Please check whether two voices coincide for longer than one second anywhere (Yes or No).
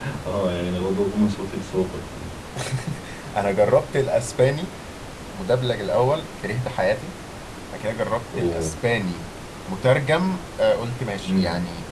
No